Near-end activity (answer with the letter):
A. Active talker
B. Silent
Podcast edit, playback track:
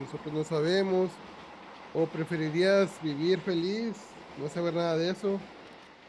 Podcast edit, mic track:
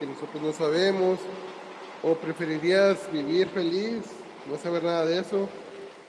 B